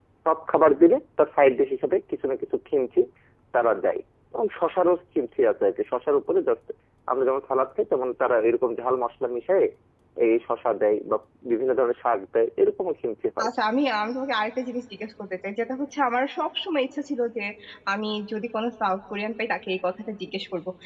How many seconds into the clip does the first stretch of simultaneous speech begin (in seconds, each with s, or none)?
none